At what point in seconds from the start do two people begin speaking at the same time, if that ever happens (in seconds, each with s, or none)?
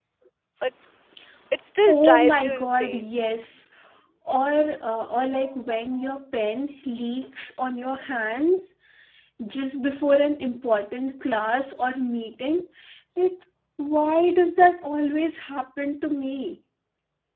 1.9 s